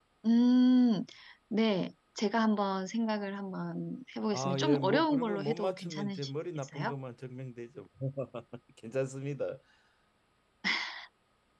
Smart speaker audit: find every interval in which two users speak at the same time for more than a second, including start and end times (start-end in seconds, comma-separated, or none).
4.3-6.9